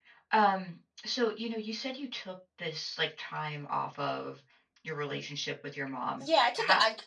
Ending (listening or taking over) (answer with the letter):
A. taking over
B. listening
A